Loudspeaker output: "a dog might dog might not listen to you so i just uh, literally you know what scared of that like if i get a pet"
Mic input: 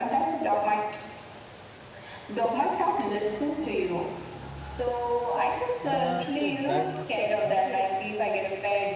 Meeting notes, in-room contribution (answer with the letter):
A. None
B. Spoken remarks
B